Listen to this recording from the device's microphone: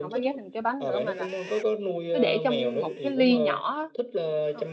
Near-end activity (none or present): present